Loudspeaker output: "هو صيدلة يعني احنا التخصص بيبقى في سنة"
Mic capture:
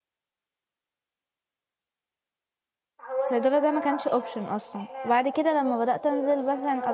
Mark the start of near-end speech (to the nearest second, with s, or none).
3 s